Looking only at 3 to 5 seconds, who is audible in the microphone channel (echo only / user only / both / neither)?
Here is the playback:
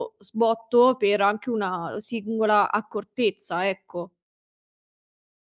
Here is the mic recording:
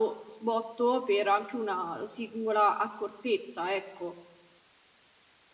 echo only